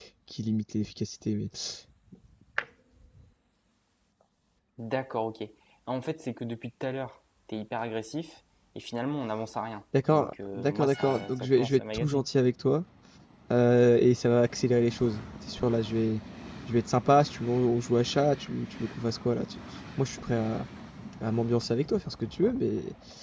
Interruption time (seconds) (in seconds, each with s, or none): 9.9 s